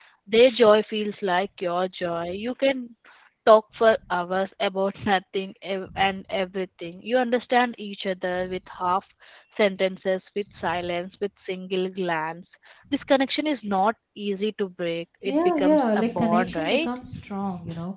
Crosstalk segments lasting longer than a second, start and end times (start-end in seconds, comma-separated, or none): 15.2-16.9